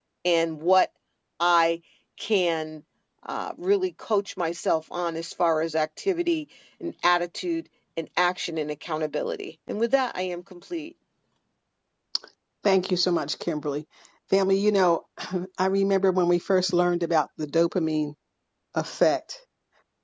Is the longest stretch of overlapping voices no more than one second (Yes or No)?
Yes